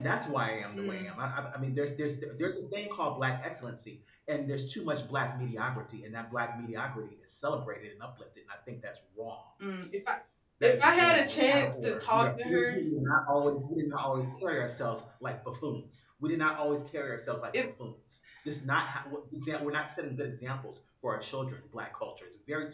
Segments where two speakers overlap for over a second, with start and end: 10.6-12.8

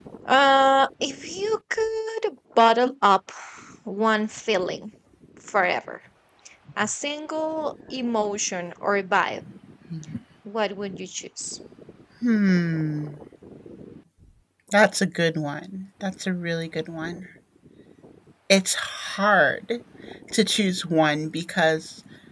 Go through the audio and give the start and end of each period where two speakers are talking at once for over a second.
none

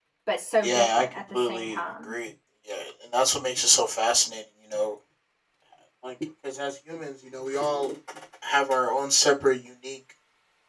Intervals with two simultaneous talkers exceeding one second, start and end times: 0.6-2.1

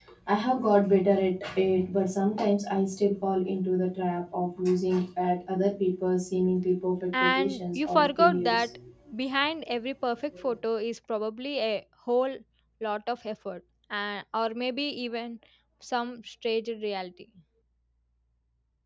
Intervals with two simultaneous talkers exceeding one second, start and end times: 7.3-8.7

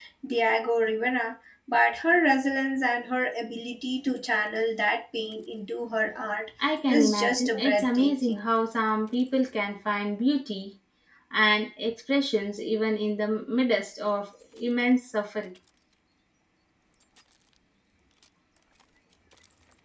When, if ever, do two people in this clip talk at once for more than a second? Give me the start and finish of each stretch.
6.9-8.4

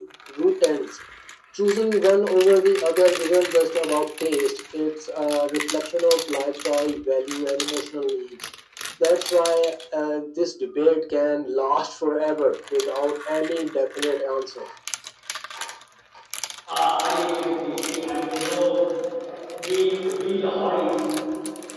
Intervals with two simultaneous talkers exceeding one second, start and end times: none

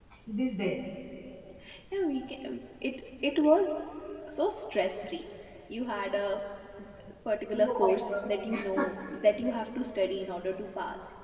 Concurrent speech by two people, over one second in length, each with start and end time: 7.5-8.8

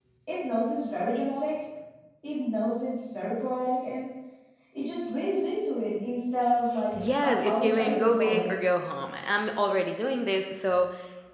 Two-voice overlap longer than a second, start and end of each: 7.0-8.6

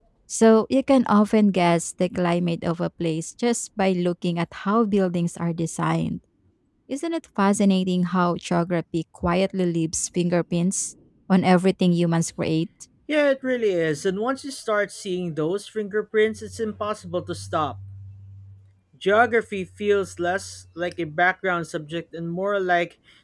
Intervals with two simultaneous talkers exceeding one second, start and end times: none

